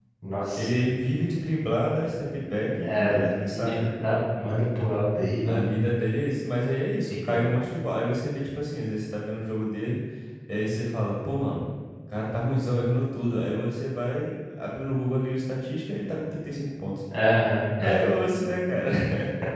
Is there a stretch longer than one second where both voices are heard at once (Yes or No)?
No